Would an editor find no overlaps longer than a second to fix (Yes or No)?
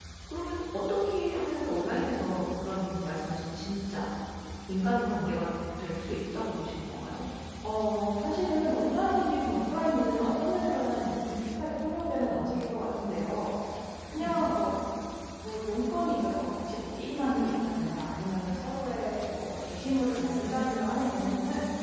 Yes